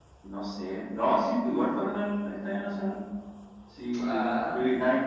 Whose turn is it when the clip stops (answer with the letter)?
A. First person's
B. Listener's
A